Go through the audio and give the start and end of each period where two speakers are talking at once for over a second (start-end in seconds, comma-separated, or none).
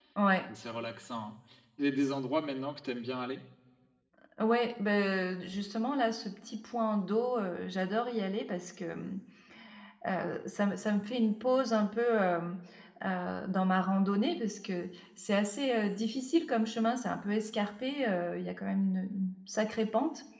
none